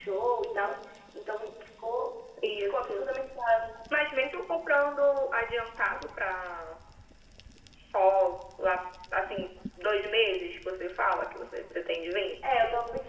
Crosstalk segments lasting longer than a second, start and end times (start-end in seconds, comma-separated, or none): none